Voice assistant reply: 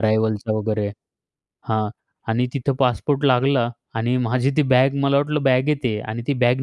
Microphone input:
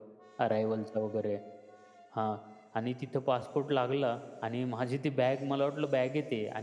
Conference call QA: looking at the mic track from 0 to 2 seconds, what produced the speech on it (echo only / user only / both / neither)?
echo only